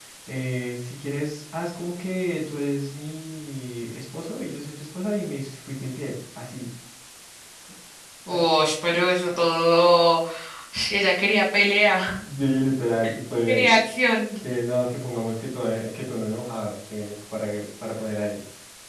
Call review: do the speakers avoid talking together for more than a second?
Yes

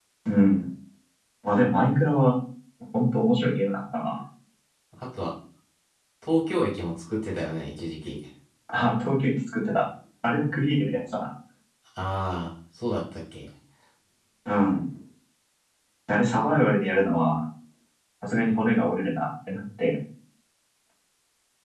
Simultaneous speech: No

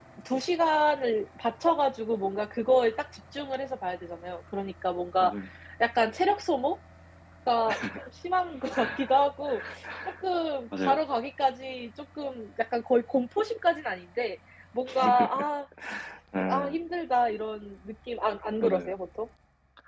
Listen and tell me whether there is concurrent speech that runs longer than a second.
No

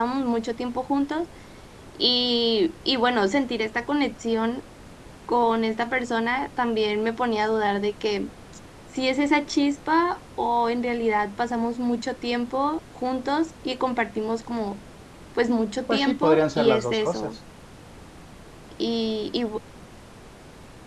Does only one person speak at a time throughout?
No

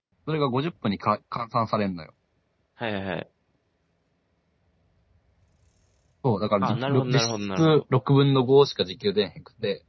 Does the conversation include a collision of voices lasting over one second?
Yes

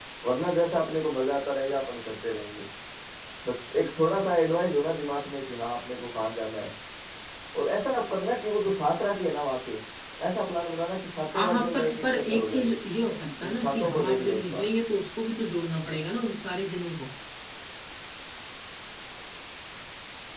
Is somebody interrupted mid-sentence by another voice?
Yes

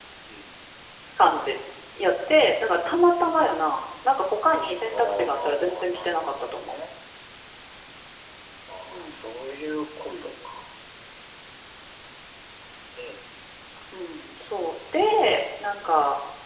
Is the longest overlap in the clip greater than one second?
Yes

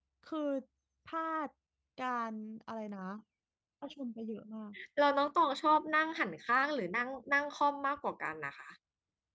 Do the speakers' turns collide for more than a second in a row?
No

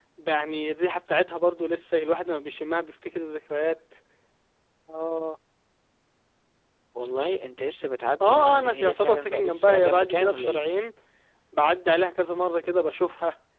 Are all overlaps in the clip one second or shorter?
No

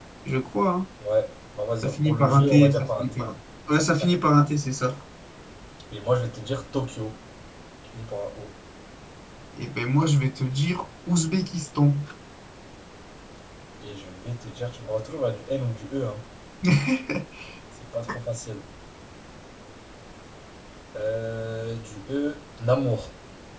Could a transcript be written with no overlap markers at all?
No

